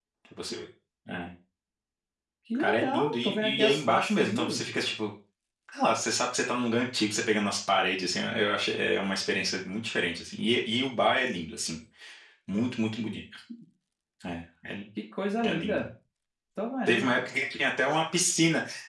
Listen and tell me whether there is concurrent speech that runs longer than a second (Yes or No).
Yes